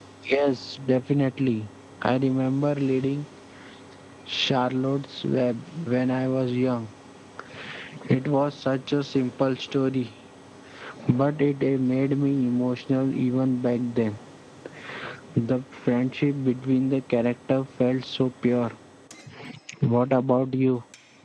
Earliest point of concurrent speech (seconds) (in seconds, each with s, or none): none